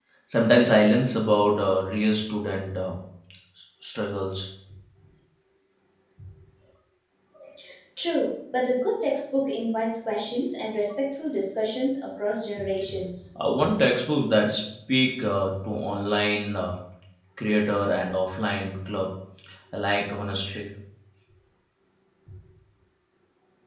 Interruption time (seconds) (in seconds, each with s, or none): none